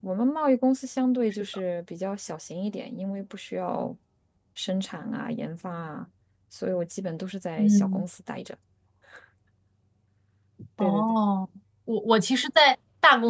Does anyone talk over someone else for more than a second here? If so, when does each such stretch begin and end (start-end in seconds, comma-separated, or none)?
none